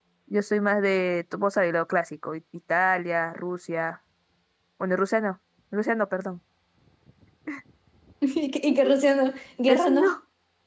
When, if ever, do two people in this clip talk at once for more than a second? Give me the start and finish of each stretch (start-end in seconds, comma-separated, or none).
none